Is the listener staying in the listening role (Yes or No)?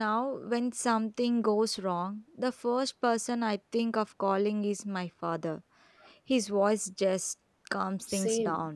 No